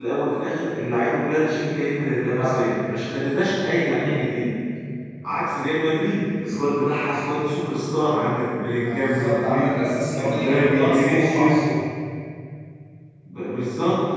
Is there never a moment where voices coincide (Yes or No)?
No